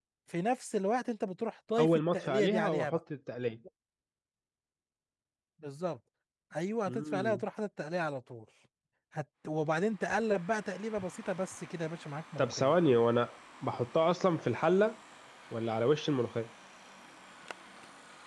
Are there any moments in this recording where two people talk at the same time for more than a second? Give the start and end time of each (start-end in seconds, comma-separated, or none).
1.8-3.0